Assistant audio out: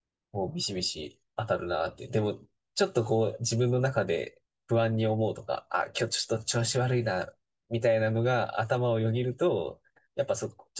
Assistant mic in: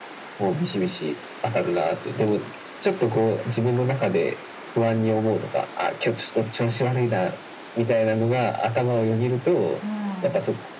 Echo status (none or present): present